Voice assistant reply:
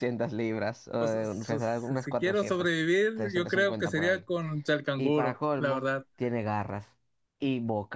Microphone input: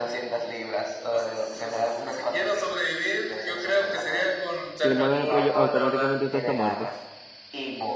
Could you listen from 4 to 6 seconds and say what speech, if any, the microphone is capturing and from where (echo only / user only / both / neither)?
both